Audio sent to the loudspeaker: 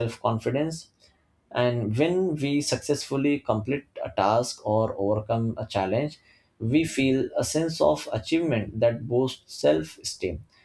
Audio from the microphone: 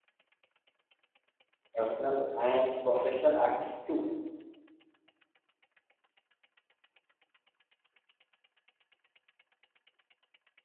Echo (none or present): none